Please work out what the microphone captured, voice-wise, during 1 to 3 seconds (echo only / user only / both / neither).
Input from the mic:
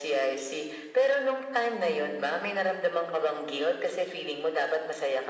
both